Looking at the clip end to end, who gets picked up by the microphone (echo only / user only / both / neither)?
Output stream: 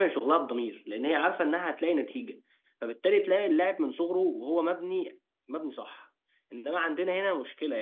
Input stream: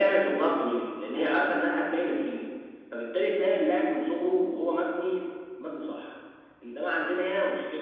echo only